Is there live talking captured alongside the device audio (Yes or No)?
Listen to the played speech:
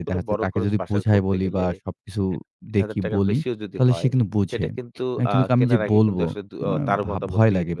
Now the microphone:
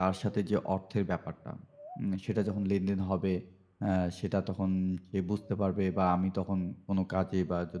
Yes